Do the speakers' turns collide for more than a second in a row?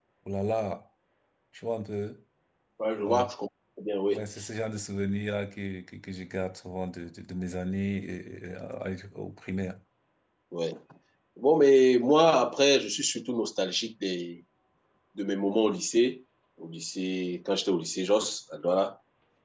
No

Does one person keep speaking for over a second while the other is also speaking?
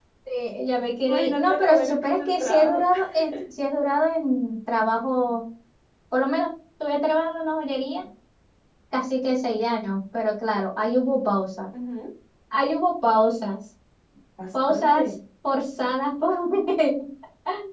Yes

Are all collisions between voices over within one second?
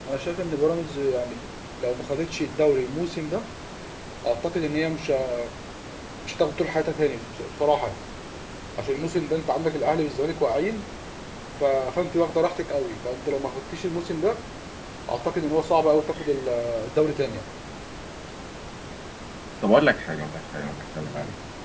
Yes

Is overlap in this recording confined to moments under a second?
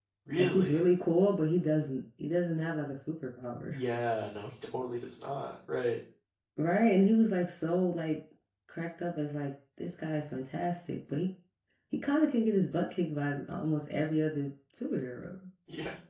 Yes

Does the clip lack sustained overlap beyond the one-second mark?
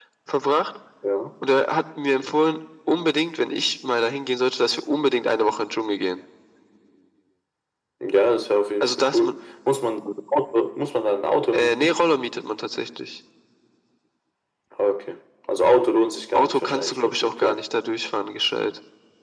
No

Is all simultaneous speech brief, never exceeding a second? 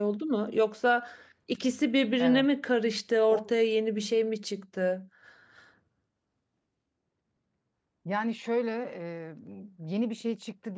Yes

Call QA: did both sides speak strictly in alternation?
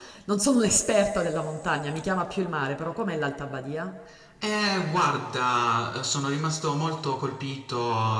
Yes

